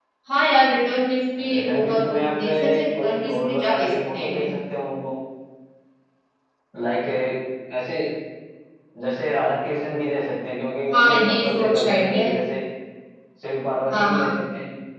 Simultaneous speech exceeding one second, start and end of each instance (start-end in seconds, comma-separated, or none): 1.4-4.5, 10.9-12.3